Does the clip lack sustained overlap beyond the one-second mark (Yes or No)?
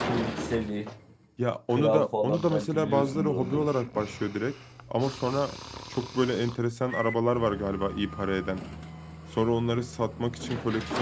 No